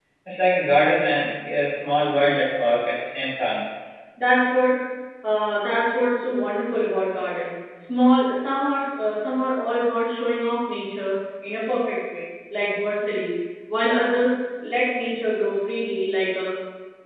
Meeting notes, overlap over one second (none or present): none